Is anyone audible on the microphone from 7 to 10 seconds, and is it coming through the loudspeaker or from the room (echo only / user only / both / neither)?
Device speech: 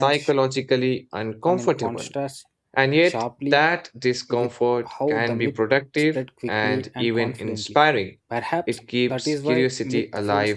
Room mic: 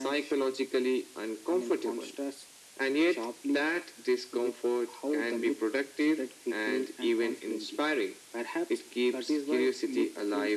echo only